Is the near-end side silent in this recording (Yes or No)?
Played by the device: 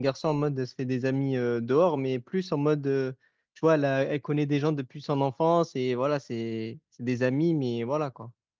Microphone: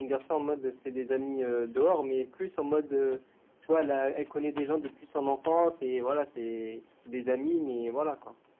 Yes